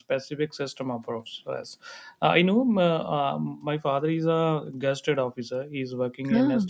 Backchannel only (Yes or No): Yes